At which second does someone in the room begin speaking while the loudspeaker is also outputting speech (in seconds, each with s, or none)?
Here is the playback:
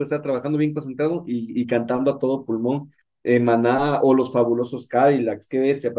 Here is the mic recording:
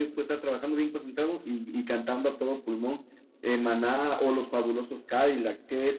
none